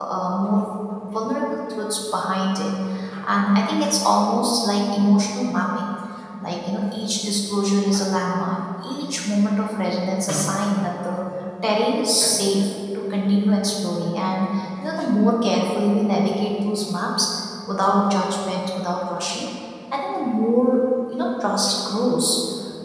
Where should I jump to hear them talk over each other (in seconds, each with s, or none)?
none